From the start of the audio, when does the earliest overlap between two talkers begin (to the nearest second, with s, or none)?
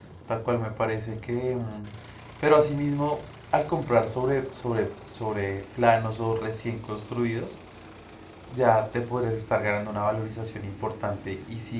none